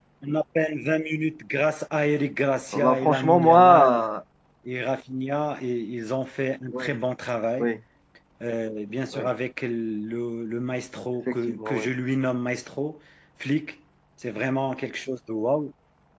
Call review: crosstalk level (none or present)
present